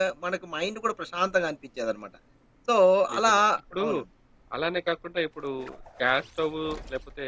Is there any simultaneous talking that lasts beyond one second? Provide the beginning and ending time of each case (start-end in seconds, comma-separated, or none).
none